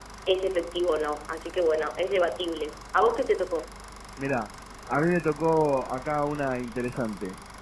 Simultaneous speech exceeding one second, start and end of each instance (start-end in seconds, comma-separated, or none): none